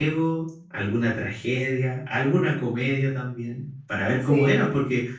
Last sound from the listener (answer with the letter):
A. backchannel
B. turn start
A